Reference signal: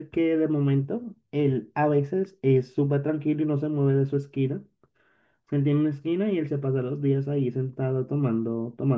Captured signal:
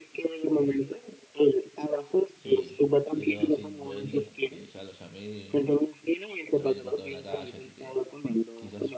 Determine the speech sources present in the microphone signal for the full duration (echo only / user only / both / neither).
both